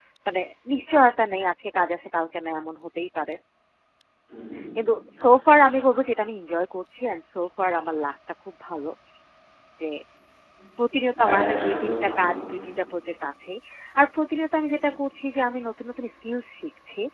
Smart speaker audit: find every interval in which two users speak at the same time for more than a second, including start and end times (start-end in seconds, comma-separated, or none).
11.2-12.4